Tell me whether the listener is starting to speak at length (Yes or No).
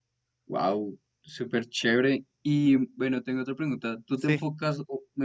No